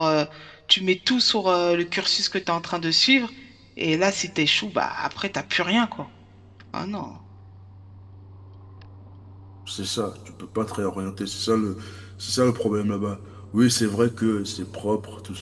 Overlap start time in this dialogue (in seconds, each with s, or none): none